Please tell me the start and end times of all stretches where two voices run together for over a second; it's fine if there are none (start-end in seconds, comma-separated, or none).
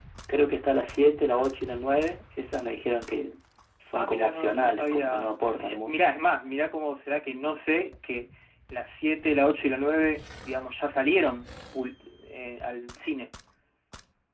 3.9-6.0